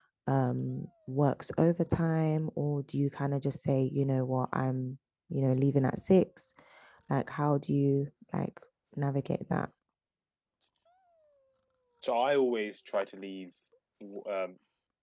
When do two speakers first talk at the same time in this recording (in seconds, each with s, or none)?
none